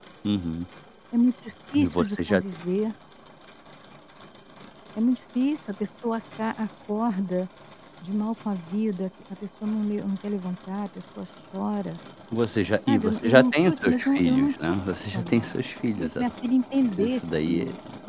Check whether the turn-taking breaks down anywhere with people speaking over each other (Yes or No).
Yes